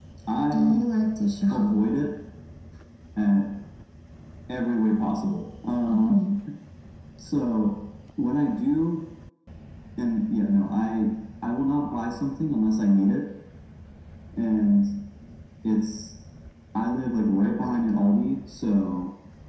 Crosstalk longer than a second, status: none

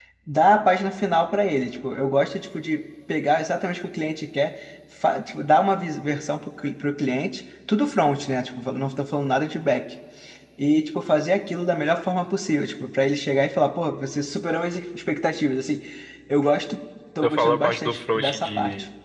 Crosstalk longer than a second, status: present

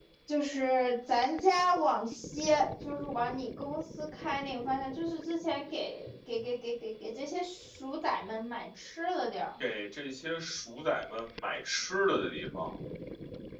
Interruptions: none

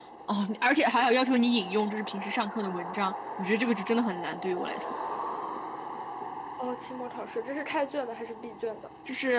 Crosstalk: none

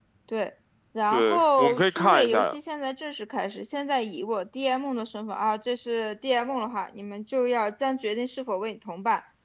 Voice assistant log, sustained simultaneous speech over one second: present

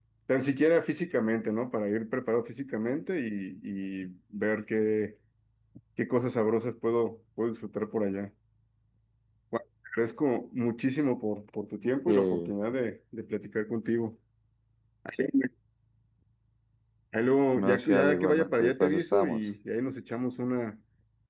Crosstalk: present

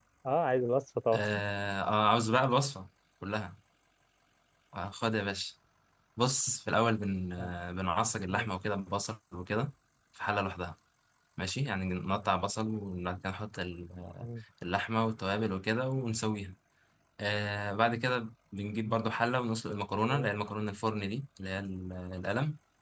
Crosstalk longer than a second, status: none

